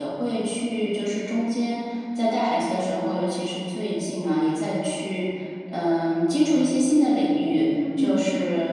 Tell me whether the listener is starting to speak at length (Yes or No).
No